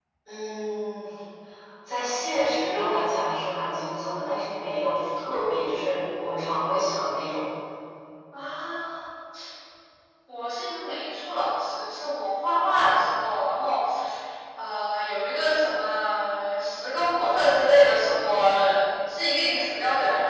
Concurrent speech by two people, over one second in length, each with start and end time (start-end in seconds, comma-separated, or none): none